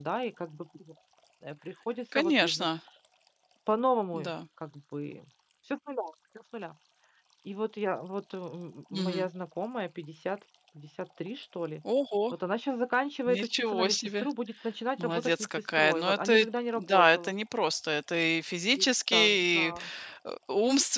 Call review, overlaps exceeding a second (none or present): present